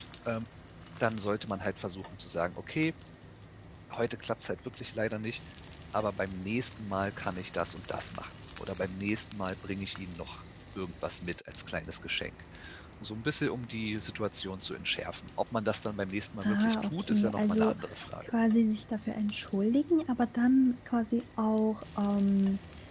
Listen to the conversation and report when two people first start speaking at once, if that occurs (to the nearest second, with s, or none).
16 s